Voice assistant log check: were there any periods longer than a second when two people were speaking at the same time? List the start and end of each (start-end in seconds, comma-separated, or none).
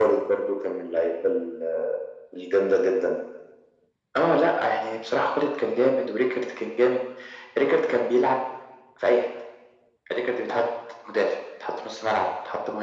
none